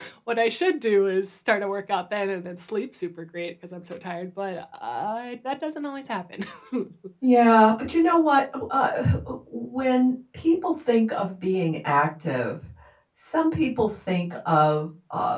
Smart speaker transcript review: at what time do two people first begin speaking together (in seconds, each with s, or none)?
none